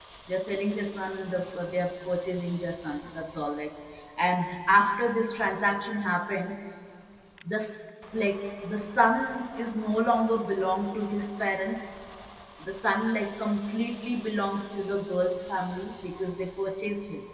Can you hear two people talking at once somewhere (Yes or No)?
No